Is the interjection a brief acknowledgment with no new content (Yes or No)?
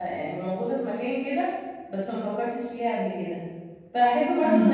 Yes